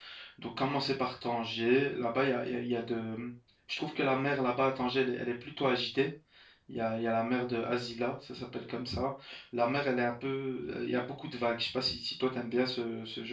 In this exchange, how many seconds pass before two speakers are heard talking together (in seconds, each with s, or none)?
none